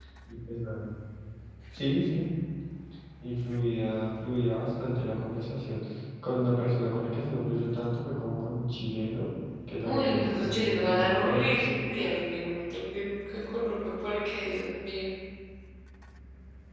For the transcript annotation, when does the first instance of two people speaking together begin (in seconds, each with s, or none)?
9.8 s